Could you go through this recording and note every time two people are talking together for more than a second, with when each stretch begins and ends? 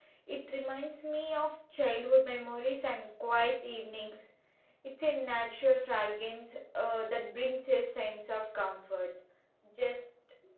none

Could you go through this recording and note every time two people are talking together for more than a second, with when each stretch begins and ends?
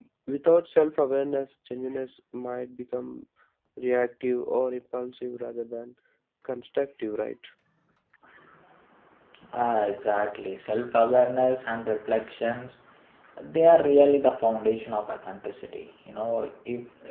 none

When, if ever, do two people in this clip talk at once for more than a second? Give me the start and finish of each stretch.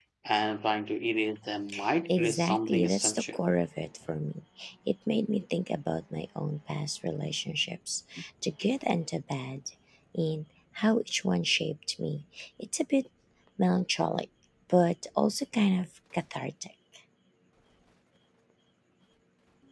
2.1-3.4

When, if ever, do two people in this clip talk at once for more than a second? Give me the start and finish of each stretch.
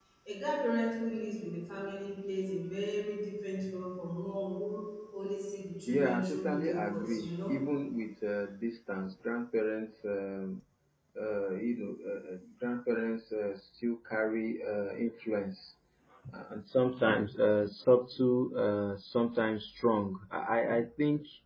5.9-7.6

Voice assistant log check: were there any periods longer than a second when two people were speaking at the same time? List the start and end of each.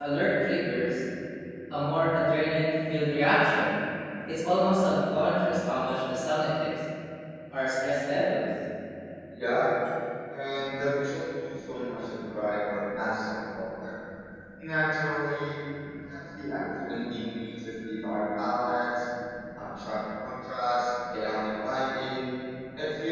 none

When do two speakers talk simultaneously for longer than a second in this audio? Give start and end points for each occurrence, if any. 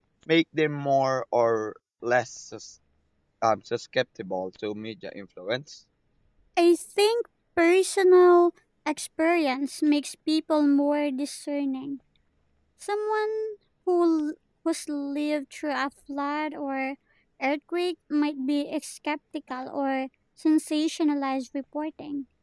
none

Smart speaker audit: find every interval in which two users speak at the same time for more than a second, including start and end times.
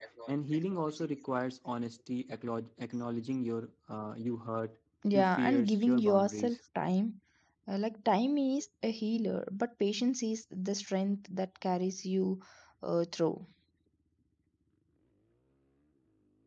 5.1-6.6

